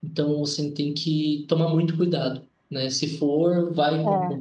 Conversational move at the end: listening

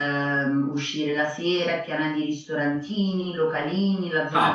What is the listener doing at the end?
taking over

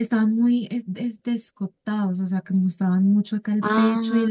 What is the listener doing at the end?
listening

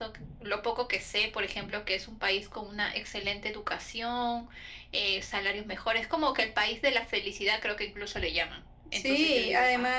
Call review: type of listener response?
taking over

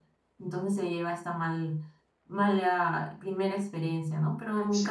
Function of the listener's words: listening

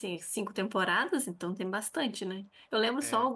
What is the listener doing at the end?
listening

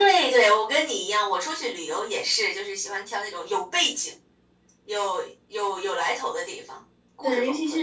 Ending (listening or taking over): taking over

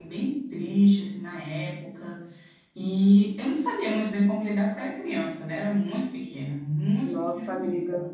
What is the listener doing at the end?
taking over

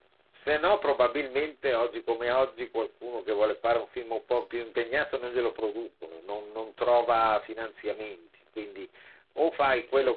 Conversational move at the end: listening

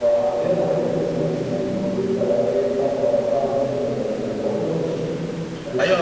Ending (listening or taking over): taking over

